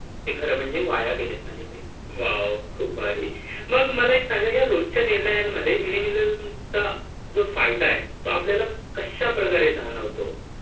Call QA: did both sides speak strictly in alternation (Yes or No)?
Yes